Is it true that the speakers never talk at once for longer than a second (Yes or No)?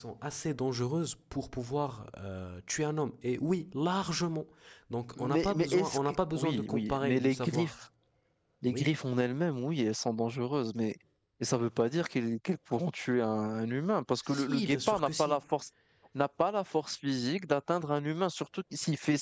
No